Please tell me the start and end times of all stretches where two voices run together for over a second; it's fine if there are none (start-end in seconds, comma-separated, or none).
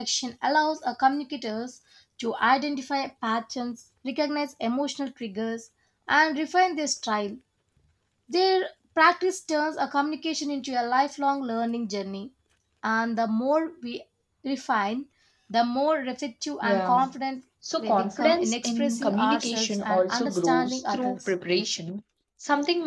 17.8-21.3